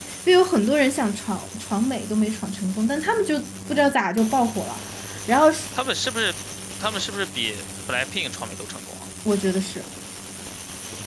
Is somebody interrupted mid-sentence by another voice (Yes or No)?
No